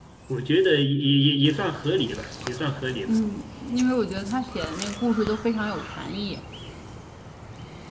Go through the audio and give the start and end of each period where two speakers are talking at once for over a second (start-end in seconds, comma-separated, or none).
none